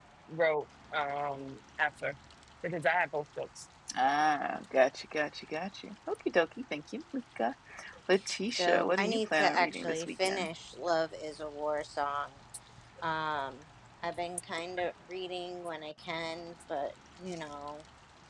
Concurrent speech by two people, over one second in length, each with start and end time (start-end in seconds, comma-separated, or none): 8.6-10.5